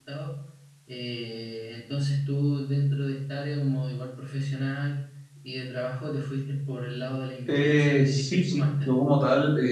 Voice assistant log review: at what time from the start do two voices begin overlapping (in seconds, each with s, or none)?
7.5 s